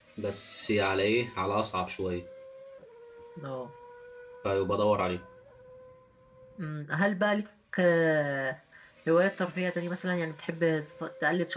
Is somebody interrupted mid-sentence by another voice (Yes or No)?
No